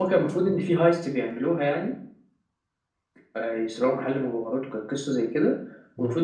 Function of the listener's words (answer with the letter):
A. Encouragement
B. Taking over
A